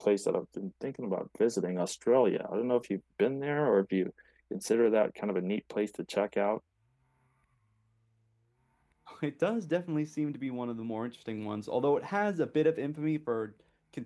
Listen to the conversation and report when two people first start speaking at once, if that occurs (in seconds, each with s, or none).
none